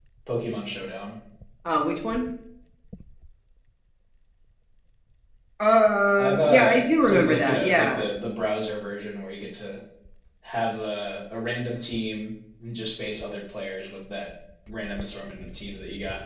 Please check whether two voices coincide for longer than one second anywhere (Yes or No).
Yes